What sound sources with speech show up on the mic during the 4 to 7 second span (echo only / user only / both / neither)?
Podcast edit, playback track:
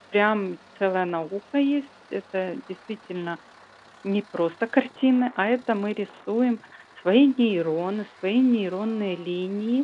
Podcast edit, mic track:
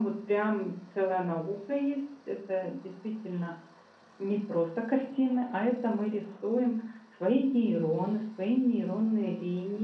echo only